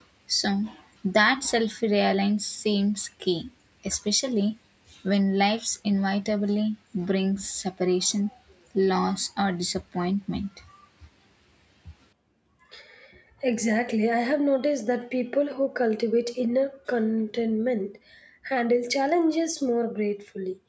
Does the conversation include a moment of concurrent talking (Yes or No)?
No